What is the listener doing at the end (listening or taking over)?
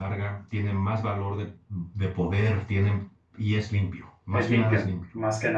taking over